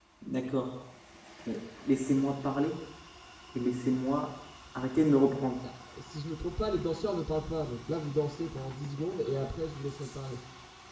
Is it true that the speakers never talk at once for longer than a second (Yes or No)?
Yes